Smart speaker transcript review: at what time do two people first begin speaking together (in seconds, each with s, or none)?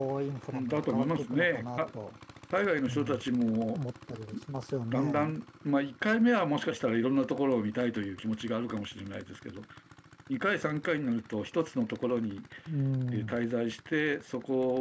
0.5 s